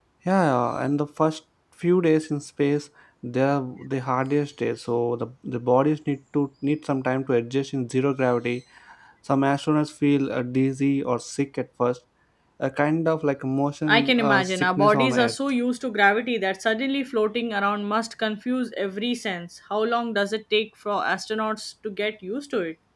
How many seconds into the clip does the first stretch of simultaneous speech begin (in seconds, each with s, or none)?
13.9 s